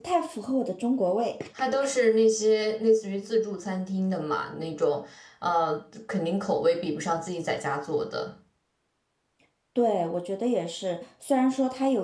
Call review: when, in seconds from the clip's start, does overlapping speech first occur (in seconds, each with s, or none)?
none